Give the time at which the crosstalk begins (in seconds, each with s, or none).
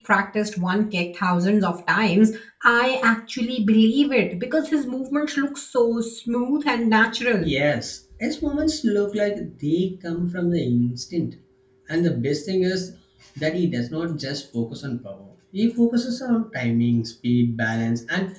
none